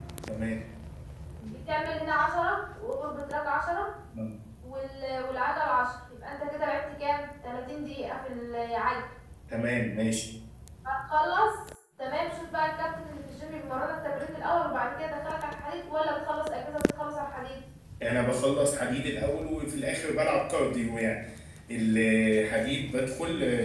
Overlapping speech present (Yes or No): No